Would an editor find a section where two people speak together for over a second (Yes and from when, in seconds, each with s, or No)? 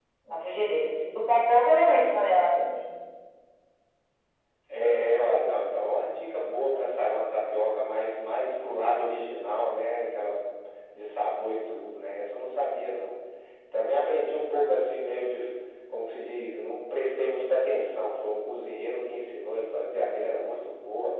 No